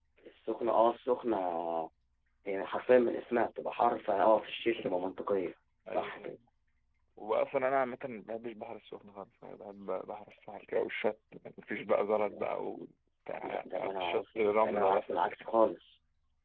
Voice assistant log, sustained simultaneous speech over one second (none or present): present